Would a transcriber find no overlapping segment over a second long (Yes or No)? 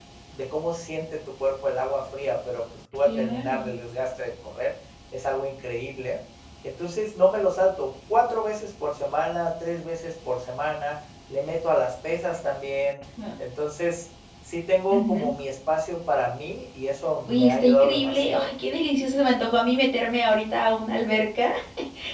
No